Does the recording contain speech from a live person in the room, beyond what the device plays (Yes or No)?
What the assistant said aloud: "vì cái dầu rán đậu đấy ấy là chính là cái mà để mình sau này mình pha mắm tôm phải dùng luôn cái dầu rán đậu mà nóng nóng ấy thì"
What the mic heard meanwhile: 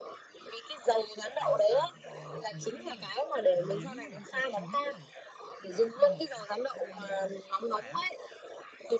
Yes